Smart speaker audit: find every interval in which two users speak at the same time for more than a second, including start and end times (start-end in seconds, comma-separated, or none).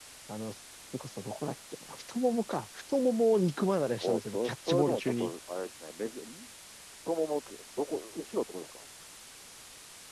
4.0-5.3